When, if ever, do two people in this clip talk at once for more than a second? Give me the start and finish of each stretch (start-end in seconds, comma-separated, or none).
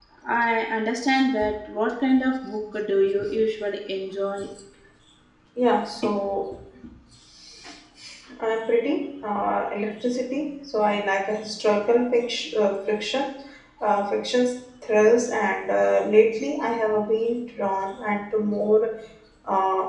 none